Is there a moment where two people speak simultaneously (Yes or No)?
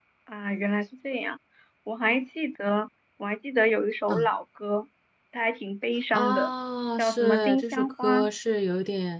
Yes